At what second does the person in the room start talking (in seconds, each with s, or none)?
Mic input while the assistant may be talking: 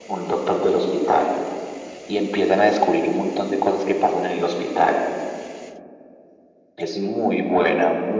none